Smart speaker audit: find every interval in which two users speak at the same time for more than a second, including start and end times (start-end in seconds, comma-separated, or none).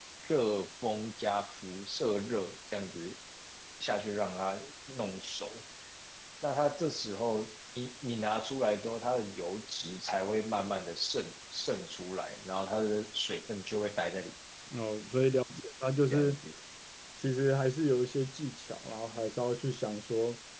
none